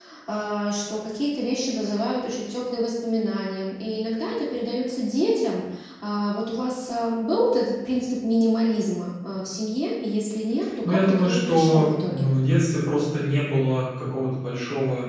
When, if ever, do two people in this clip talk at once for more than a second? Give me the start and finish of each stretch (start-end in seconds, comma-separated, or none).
10.8-12.2